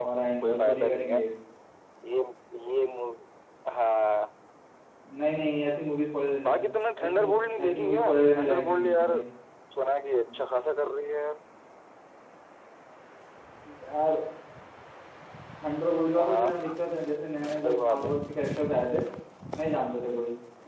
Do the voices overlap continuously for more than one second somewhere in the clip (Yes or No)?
Yes